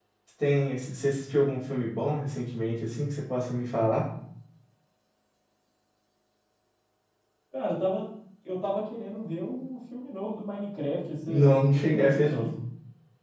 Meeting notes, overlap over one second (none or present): present